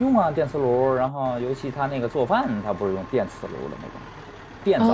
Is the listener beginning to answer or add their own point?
Yes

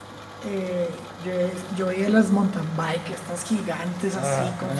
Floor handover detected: No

